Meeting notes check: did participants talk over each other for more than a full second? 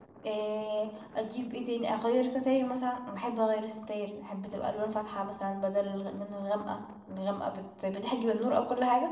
No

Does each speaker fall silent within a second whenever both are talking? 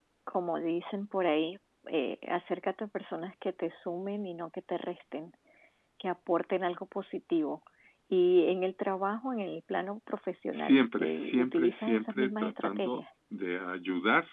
No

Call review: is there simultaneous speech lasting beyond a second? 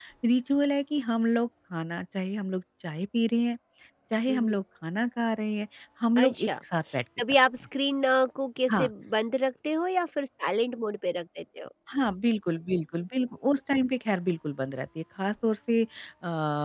No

